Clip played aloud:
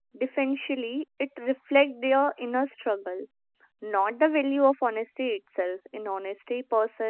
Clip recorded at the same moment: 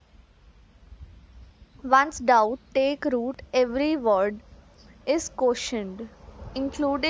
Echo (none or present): none